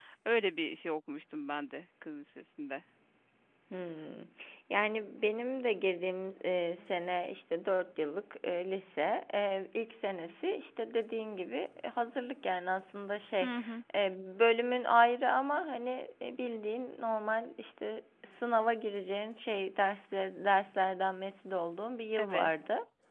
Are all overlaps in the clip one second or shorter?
Yes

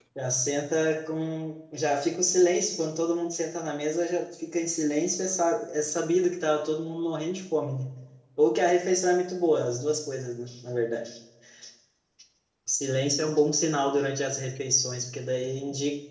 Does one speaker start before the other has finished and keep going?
No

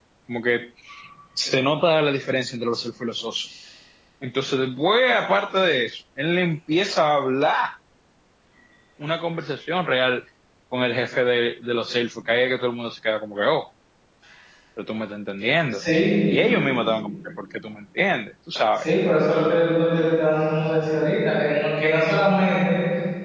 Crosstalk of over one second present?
No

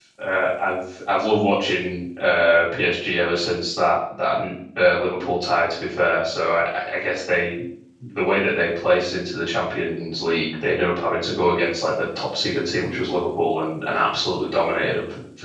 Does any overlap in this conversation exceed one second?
No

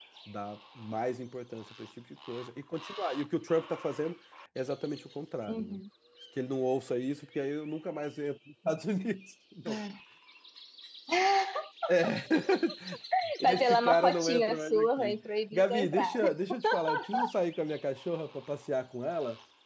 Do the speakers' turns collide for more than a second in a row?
Yes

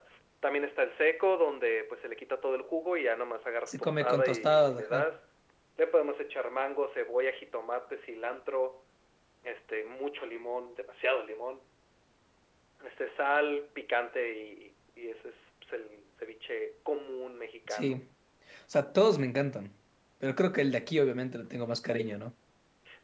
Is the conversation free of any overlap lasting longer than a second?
No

